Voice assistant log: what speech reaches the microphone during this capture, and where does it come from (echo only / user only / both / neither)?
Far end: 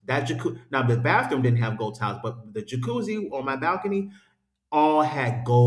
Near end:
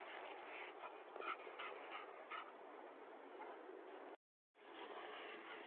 neither